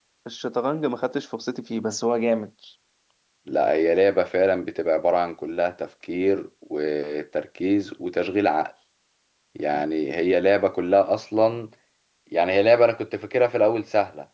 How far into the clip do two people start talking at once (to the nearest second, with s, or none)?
none